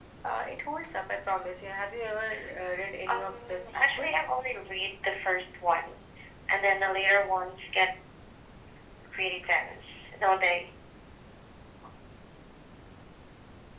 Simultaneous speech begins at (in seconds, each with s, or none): 3.1 s